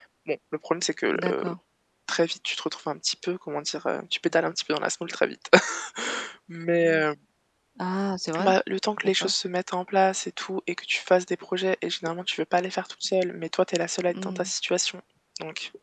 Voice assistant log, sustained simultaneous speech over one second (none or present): none